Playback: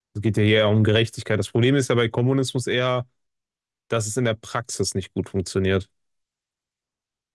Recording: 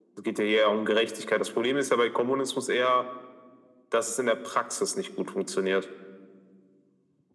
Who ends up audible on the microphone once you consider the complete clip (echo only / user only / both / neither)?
echo only